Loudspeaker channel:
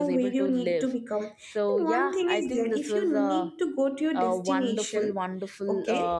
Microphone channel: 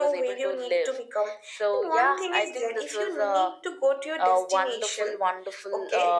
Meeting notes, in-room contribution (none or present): none